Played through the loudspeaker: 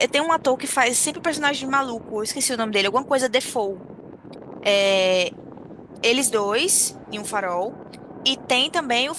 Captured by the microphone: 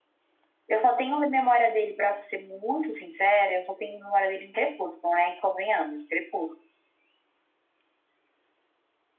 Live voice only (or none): eu só tenho memória dele, pra ser muito sincera, eu só tenho memória dele em Crepúsculo, né? E convenhamos, Crepúsculo.